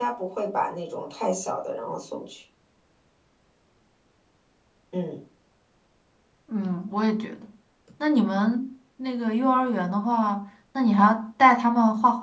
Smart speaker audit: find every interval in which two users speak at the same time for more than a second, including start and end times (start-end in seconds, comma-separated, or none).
none